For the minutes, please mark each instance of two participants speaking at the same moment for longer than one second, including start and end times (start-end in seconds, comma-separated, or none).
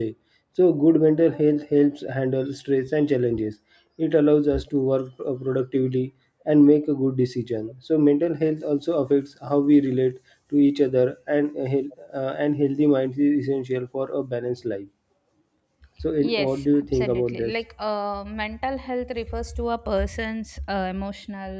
16.2-17.5